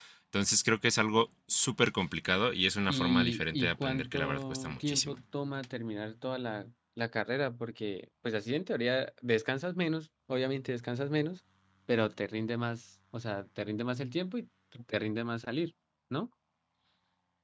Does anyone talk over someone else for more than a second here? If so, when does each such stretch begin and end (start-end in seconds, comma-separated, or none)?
2.9-5.2